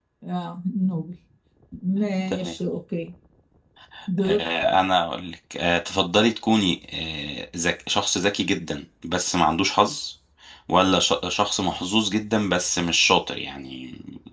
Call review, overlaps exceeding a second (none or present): none